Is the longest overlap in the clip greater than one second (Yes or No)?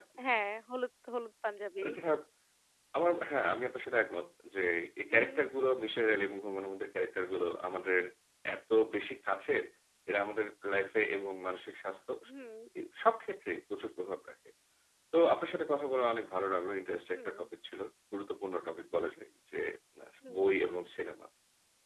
No